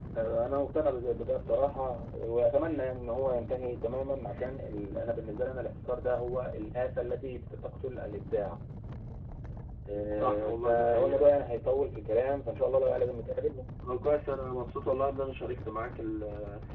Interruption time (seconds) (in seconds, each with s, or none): 10.1 s